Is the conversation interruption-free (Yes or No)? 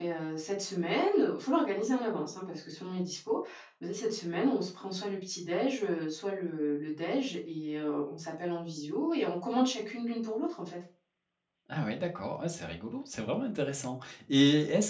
Yes